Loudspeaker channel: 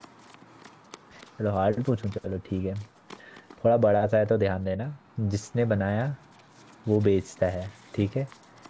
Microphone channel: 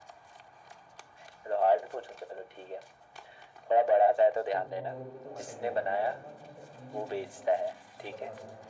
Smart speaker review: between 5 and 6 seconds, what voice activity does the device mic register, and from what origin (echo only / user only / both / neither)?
both